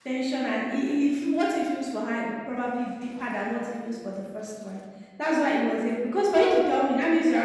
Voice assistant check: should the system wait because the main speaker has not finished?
Yes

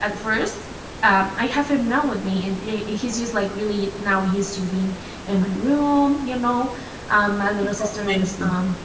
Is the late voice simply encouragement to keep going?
Yes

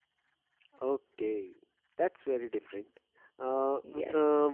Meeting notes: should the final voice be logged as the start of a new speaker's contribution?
No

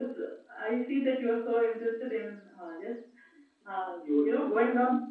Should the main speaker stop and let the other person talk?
No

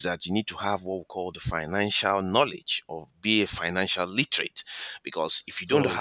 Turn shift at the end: No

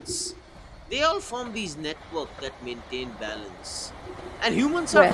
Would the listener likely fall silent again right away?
Yes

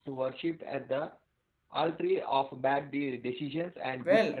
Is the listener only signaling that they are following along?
No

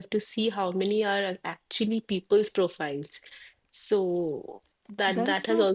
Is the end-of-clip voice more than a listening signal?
Yes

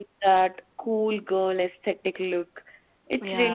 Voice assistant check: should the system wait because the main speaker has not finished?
Yes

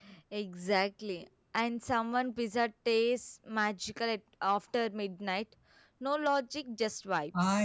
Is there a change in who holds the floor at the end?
Yes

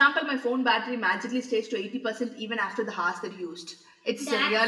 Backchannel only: No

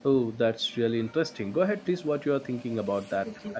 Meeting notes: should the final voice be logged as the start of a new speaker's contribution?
Yes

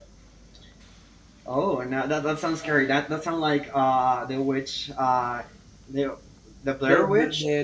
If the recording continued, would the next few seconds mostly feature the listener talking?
Yes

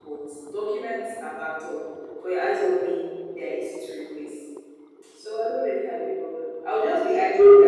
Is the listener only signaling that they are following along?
Yes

